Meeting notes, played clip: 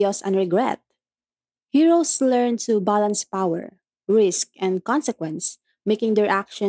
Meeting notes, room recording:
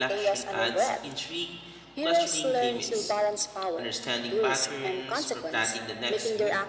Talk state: both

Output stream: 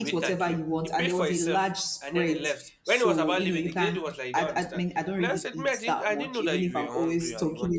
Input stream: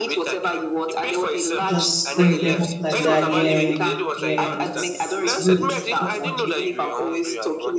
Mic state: both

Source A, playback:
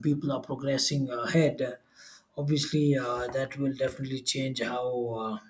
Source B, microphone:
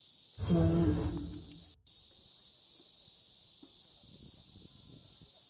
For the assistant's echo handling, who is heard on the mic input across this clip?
user only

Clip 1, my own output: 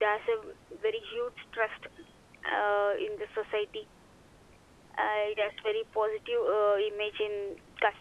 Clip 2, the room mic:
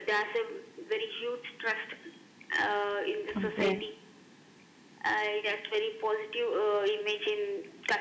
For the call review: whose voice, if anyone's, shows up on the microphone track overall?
both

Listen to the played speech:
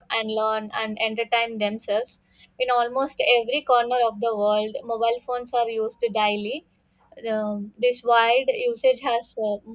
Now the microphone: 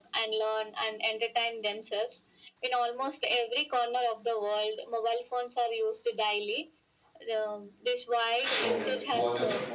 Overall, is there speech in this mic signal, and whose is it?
both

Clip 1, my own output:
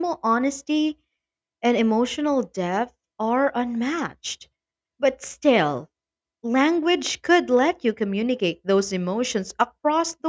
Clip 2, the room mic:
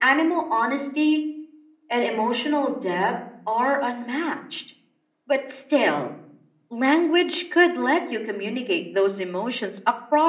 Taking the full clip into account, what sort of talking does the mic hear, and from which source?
echo only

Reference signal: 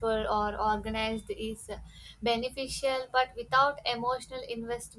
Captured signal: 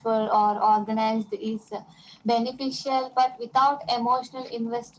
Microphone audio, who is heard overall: echo only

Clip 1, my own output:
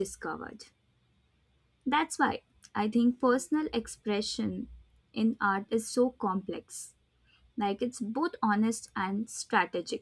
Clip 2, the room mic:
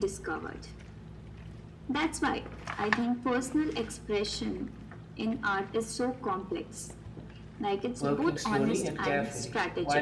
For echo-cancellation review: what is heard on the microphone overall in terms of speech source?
both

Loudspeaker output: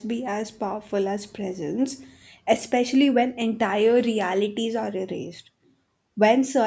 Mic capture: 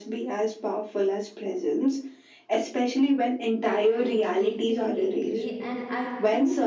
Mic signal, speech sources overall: both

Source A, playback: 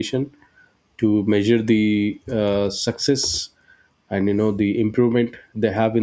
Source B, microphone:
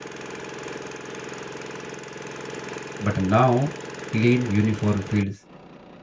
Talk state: user only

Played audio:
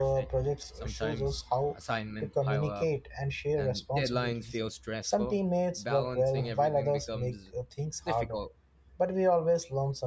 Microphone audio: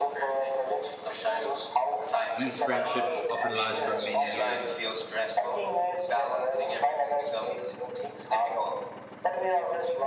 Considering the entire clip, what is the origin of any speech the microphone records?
both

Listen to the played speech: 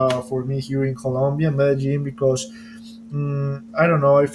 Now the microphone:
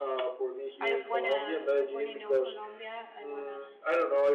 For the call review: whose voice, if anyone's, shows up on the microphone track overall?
both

